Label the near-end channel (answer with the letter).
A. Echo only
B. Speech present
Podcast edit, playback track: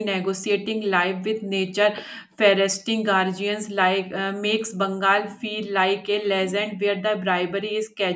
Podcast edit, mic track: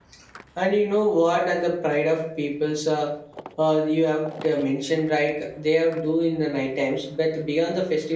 B